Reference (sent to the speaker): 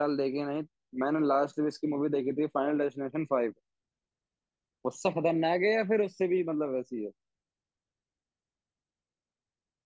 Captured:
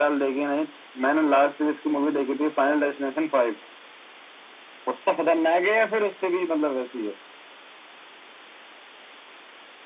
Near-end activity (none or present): none